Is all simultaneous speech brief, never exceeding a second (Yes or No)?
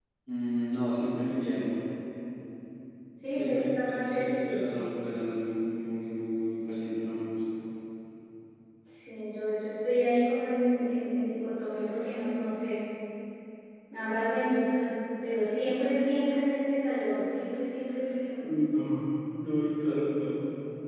No